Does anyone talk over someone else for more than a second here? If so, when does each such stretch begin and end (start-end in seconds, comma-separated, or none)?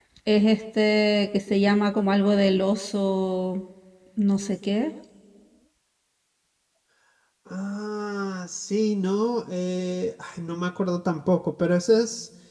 none